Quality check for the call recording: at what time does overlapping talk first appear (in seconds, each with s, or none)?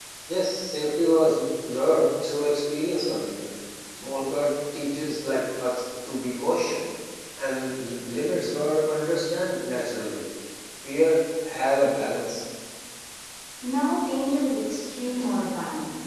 none